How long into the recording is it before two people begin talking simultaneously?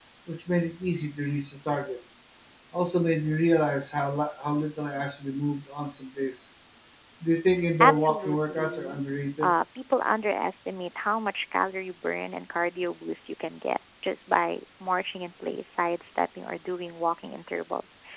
8 s

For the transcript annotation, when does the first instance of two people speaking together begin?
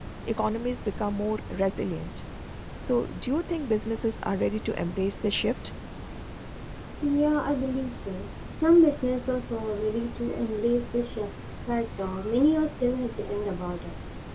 none

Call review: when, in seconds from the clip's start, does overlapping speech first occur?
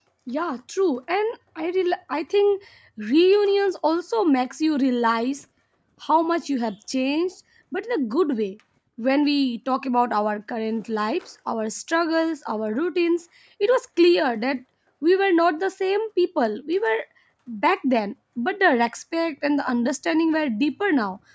none

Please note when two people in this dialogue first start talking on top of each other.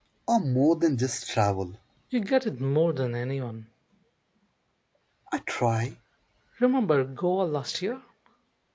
none

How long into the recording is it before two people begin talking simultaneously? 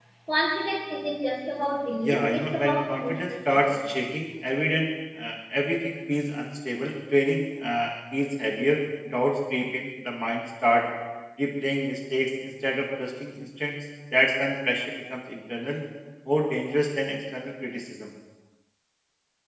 2 s

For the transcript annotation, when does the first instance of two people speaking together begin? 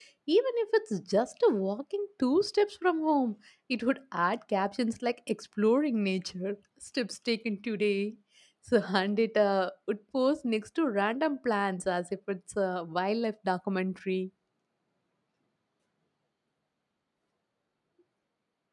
none

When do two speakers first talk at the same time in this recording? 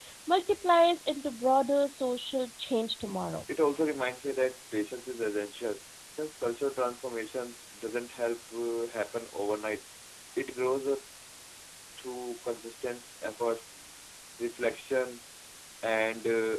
none

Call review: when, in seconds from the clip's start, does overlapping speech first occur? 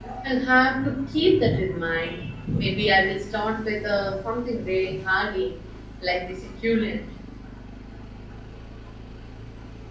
none

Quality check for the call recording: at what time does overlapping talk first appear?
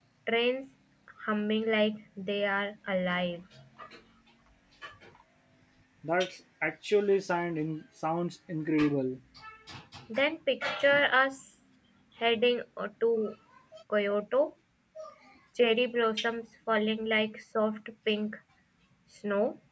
none

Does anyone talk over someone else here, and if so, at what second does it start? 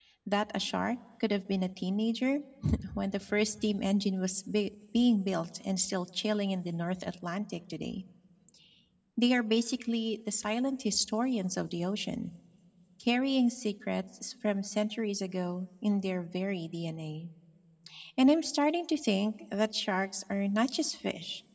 none

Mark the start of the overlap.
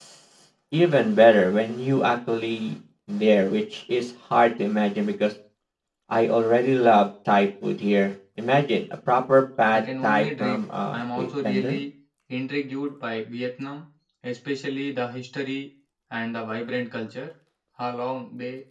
10 s

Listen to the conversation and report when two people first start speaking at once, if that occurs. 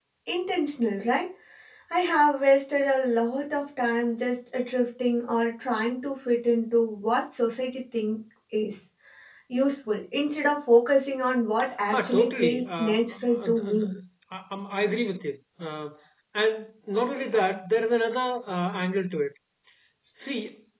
12 s

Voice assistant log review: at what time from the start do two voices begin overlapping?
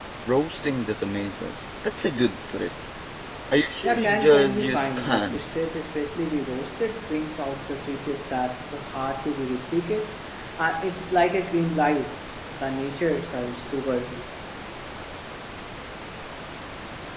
4 s

